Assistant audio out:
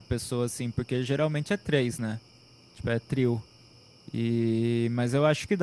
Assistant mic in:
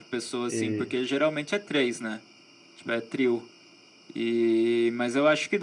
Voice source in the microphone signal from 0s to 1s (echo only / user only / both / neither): both